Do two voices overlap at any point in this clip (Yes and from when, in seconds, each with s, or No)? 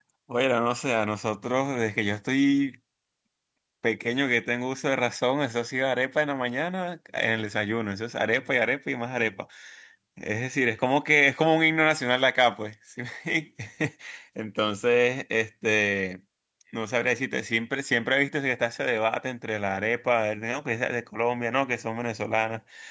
No